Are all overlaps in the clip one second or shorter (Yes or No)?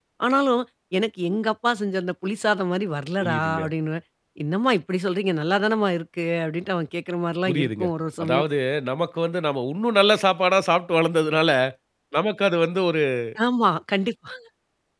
Yes